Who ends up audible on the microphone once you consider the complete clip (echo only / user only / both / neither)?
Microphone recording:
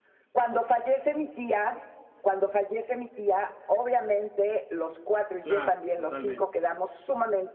both